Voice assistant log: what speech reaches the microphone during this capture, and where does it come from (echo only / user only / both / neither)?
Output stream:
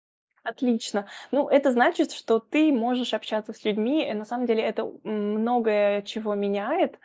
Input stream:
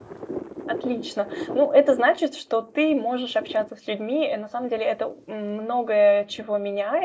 echo only